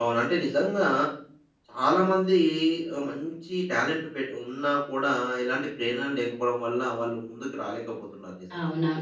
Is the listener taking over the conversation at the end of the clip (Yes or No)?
Yes